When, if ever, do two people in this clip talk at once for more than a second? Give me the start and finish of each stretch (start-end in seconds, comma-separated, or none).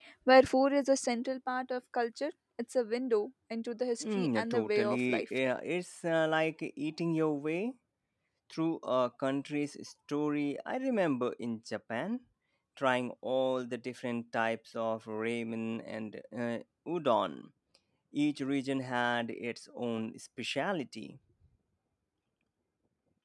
4.0-5.2